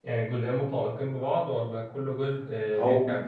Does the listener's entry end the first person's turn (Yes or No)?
Yes